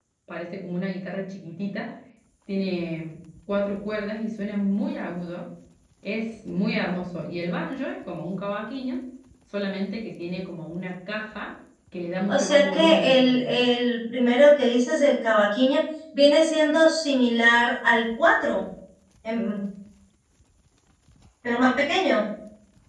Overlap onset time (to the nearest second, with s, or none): 12 s